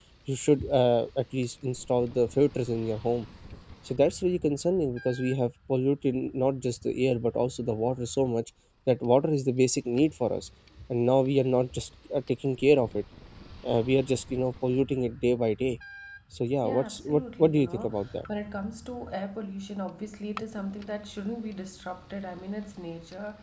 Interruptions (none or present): present